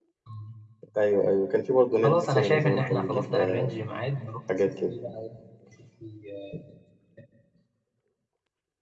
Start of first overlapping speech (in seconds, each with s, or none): 2.0 s